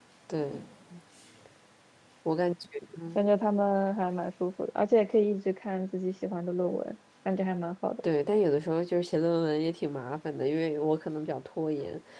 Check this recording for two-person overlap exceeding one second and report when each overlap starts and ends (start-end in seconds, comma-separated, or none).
none